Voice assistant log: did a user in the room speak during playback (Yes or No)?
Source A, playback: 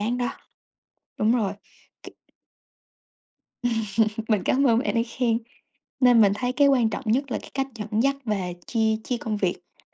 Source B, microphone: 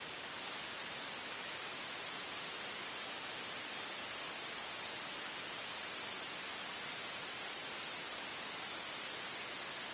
No